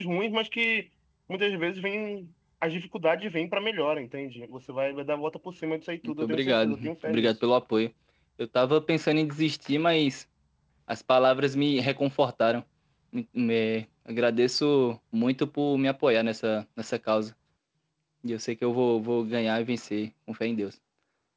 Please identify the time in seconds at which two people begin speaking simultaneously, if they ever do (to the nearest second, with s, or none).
6 s